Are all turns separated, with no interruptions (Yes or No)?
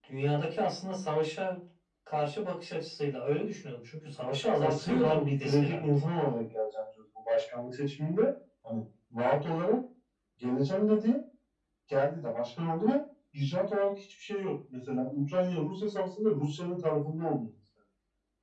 No